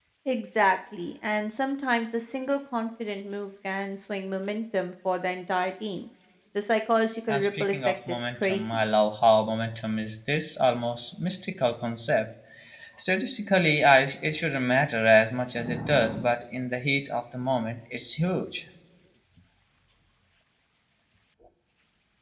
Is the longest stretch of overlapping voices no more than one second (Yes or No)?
No